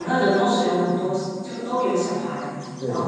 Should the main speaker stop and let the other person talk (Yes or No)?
No